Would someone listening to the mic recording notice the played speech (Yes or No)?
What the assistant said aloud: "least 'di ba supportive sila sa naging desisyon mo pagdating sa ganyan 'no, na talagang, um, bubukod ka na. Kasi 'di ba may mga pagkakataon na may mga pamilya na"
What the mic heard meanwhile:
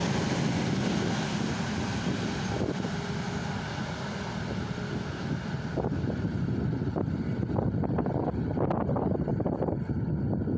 No